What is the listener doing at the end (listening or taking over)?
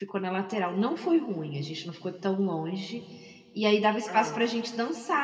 listening